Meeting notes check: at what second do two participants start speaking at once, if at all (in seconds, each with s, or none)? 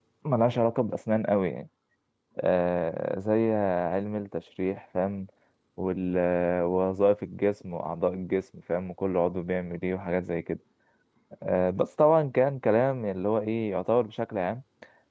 none